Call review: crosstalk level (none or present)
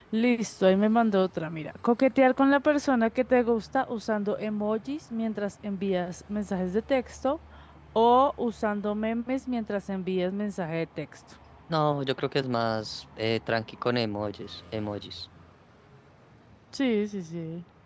none